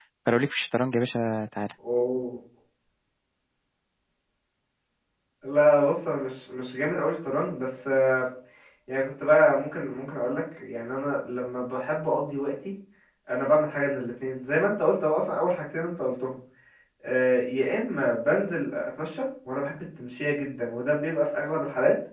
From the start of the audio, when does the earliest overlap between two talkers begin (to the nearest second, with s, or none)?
none